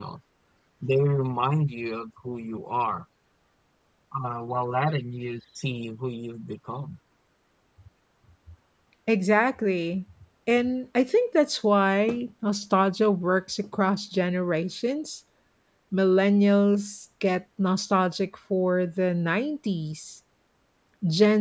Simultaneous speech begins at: none

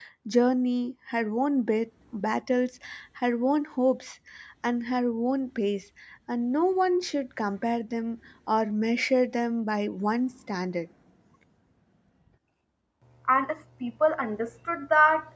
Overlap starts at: none

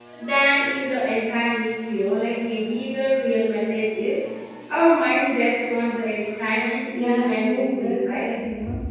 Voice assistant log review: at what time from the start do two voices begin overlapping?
6.9 s

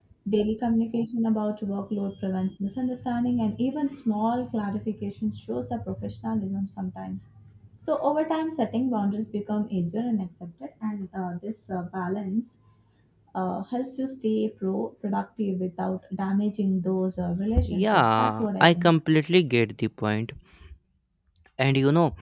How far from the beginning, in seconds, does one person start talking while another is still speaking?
17.6 s

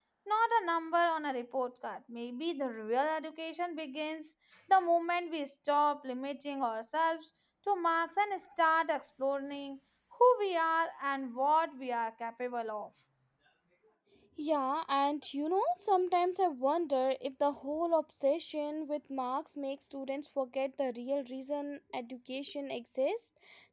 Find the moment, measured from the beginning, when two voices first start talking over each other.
none

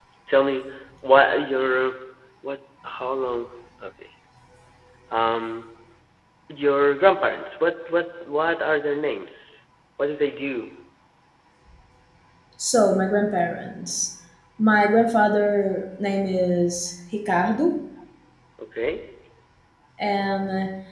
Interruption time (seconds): none

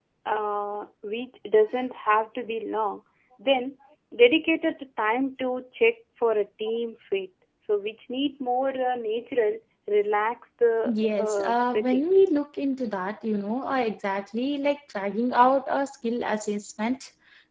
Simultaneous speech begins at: 10.8 s

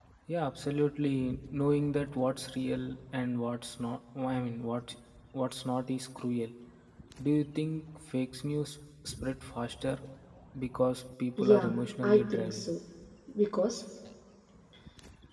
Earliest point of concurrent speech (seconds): 11.4 s

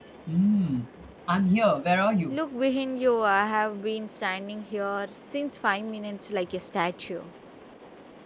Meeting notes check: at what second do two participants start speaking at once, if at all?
none

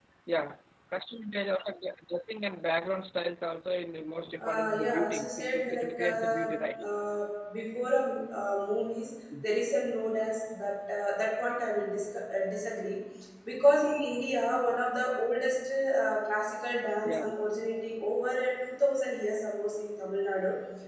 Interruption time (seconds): 4.4 s

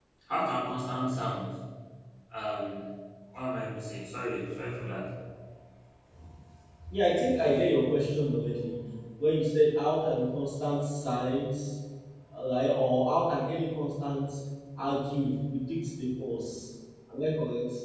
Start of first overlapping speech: none

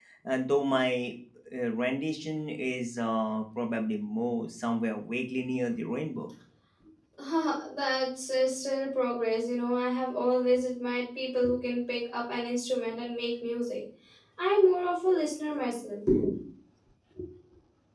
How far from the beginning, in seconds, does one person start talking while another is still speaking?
none

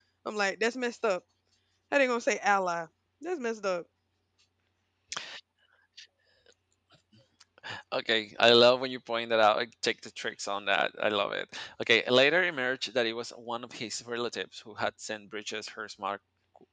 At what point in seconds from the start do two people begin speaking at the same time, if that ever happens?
none

